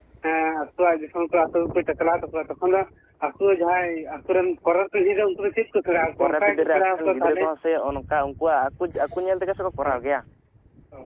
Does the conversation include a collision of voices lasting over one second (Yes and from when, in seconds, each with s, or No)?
Yes, from 6.2 s